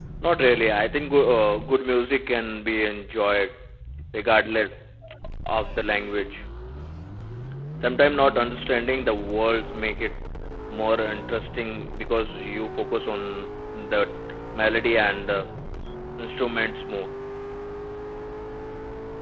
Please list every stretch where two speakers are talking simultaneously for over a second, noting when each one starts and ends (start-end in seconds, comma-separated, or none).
none